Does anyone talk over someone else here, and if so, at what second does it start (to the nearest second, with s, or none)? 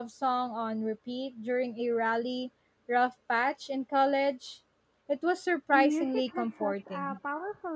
6 s